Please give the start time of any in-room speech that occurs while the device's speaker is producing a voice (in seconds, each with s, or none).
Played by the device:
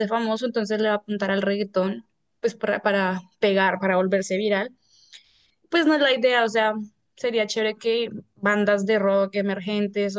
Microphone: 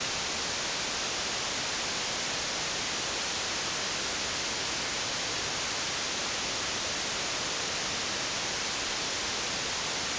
none